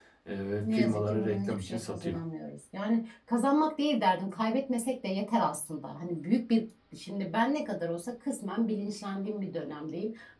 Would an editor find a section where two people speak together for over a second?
Yes, from 0.6 s

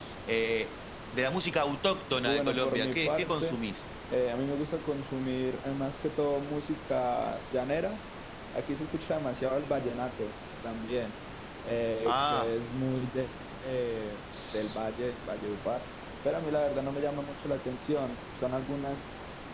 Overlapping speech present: Yes, from 2.1 s

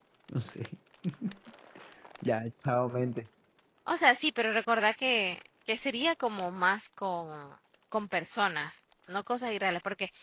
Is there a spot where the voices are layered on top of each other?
No

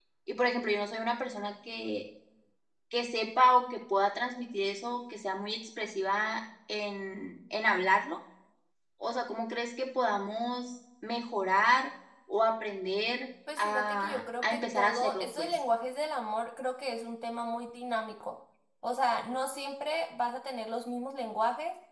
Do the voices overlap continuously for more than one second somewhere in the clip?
Yes, from 13.5 s

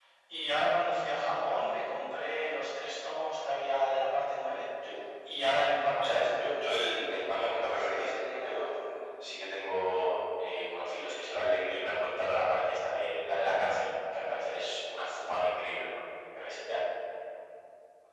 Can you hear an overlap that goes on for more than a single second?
Yes, from 6.0 s

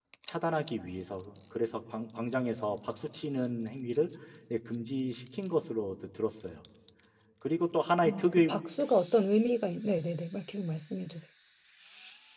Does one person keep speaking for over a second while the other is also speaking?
No

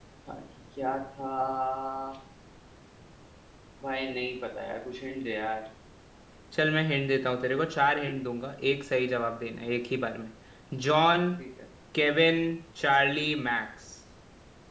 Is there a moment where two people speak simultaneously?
No

